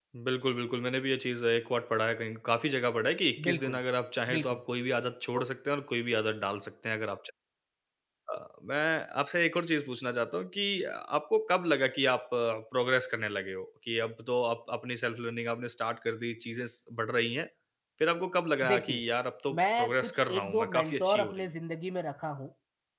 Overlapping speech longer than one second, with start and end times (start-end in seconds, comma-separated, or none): 19.5-21.4